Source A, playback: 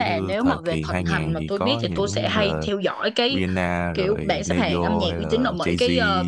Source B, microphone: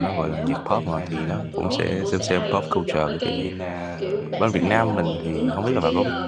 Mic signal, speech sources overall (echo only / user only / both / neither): both